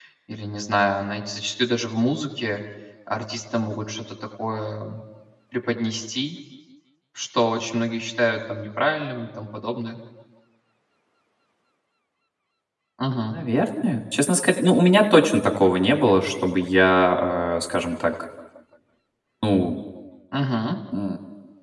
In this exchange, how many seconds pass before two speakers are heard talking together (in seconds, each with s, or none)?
none